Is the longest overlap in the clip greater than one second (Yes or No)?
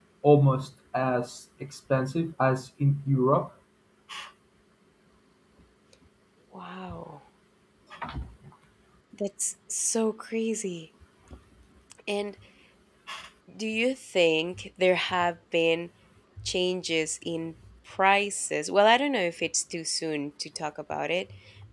No